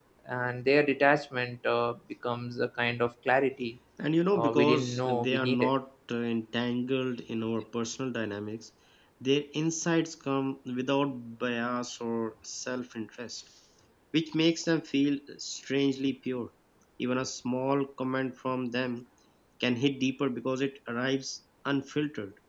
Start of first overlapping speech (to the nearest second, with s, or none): 4 s